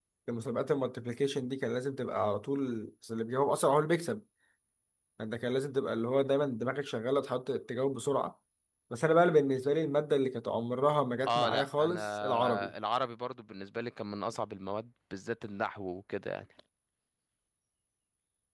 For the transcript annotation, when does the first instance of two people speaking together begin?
11.3 s

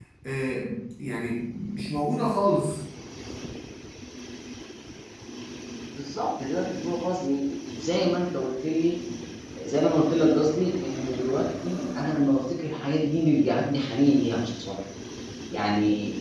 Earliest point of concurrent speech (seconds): none

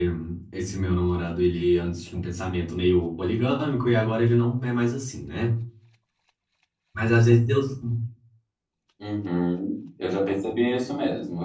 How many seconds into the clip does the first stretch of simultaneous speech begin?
none

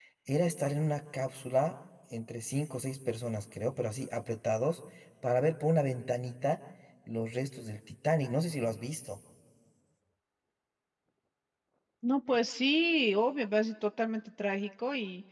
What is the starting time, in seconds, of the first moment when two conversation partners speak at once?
none

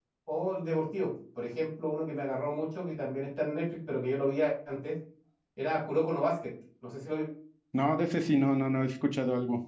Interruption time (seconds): none

